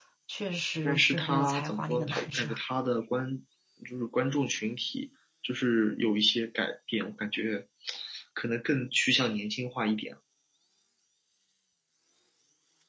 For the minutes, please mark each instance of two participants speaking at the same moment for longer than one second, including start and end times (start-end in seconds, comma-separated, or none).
0.8-2.5